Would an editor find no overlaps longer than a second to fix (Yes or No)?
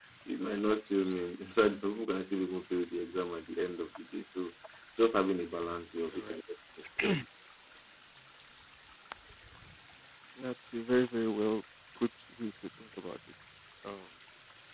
Yes